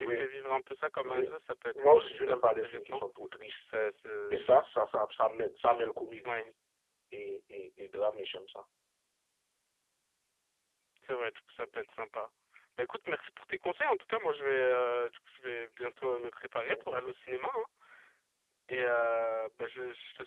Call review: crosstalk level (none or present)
present